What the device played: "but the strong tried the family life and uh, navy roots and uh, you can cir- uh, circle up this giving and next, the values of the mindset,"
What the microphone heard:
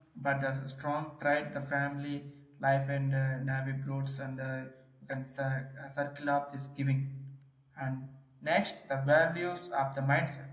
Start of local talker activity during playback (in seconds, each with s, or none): none